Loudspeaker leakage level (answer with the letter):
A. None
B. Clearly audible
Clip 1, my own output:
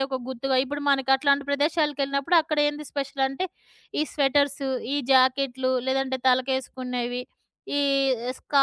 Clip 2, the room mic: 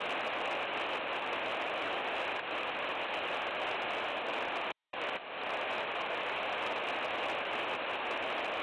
A